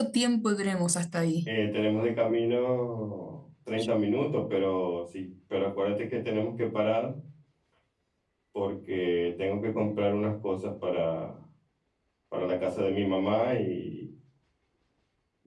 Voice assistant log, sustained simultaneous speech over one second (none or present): none